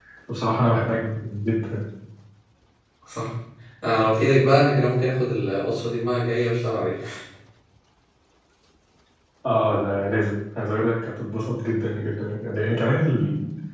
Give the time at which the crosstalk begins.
none

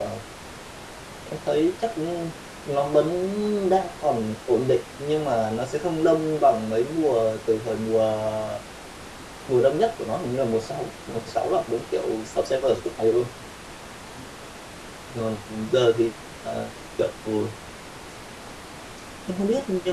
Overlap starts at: none

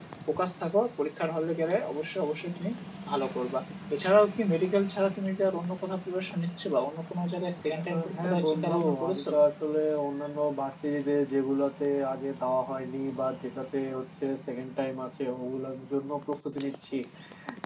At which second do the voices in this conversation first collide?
7.7 s

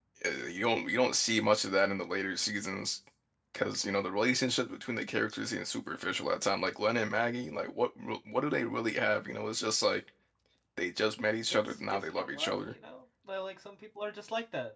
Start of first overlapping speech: 11.5 s

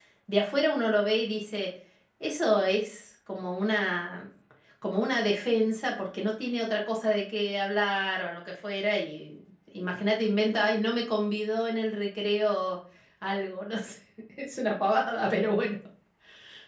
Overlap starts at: none

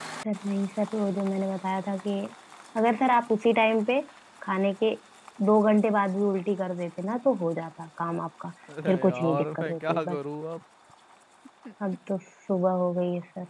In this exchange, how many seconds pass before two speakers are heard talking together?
8.9 s

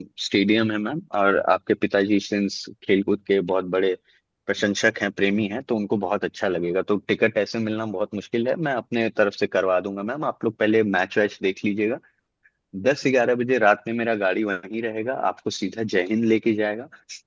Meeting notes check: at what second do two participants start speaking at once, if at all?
none

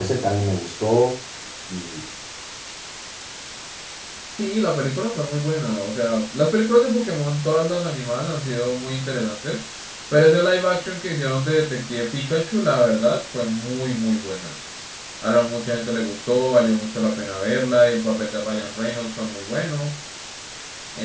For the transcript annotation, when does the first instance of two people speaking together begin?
none

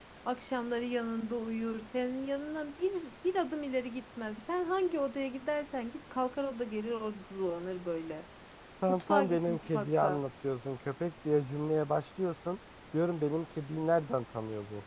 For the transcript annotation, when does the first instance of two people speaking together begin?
8.9 s

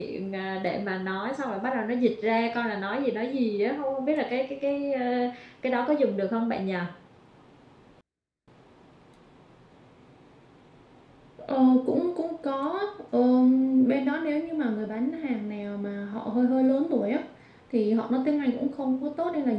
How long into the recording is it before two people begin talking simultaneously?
none

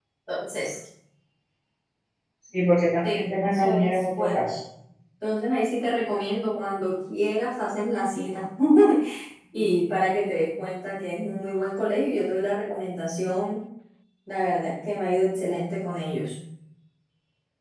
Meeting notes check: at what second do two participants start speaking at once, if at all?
3.1 s

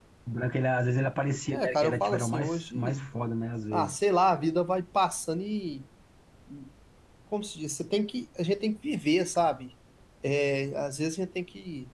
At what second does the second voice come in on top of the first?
1.5 s

